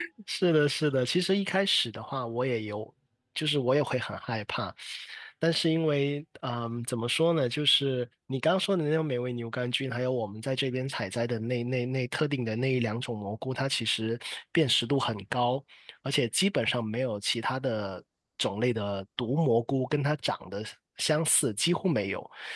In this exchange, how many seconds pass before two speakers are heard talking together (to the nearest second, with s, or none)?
none